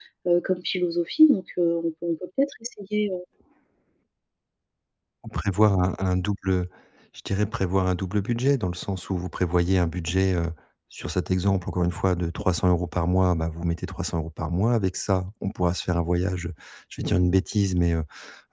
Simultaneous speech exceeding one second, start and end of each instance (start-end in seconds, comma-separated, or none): none